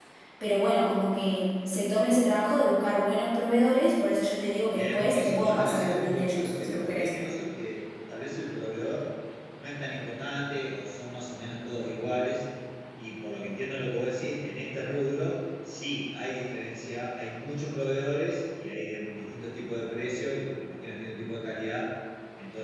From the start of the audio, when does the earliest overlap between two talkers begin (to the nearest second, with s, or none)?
5 s